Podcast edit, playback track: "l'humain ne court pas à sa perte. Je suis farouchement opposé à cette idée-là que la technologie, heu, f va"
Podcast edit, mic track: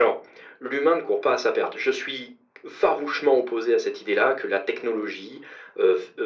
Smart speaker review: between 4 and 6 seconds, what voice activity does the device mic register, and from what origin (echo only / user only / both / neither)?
echo only